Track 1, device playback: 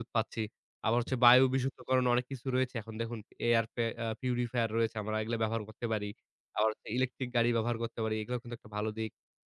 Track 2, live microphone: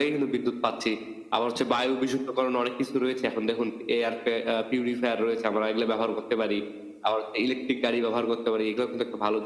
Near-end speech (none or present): none